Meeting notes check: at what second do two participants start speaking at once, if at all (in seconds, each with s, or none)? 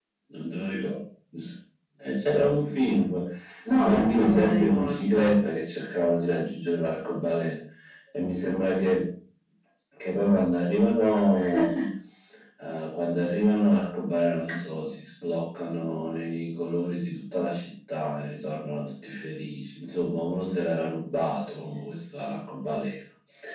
3.8 s